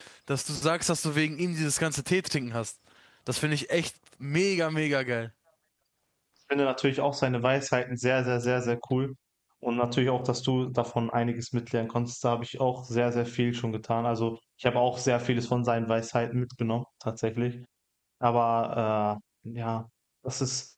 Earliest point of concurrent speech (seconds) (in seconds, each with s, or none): none